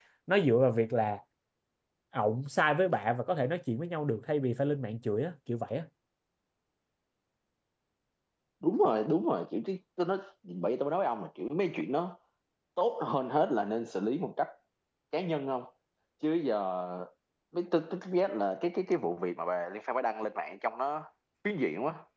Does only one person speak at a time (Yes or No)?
Yes